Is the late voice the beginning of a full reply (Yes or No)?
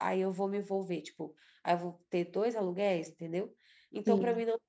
No